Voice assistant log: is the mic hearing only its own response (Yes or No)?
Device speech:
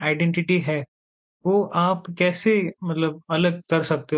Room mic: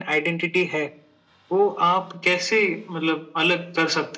Yes